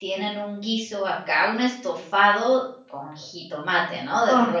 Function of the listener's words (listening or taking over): listening